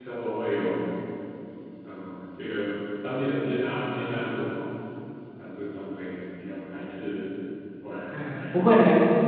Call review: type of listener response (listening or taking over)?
taking over